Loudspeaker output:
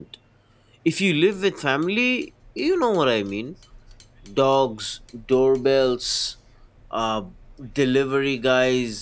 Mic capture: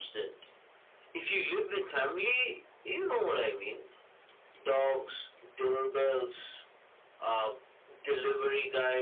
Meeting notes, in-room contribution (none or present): none